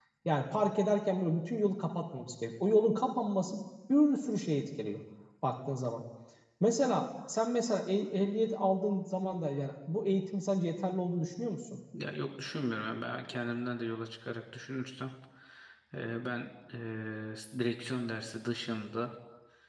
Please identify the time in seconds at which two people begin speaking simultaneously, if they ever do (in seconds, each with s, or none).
none